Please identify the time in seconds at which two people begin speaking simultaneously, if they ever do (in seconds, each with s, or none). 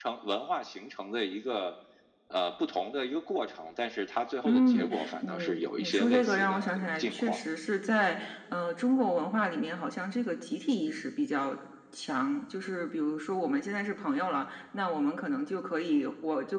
4.4 s